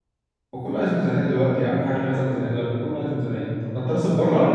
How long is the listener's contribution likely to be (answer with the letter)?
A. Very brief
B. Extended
B